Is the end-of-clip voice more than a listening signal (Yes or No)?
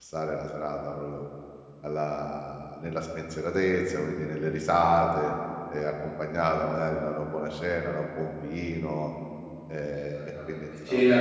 Yes